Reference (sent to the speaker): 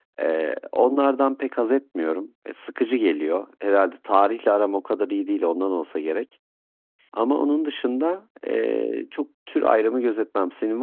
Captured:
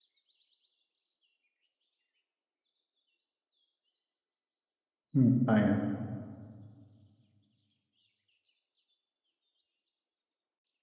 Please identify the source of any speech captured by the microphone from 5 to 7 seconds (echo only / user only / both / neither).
user only